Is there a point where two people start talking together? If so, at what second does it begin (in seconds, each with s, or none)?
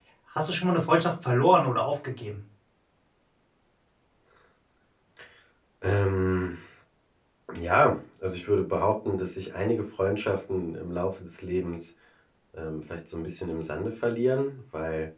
none